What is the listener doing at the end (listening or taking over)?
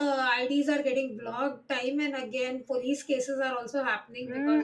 taking over